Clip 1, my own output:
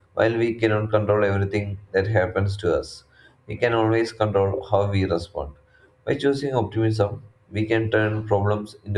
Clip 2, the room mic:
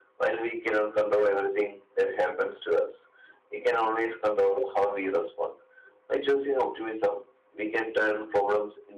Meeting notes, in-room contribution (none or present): none